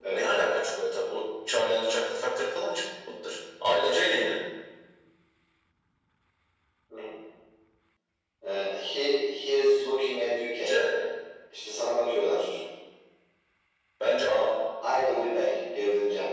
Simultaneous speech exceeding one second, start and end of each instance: none

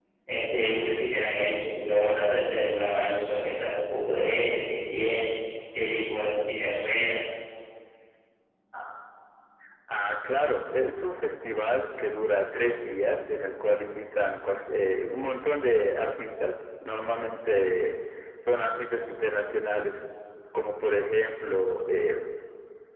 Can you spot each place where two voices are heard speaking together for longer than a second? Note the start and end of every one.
none

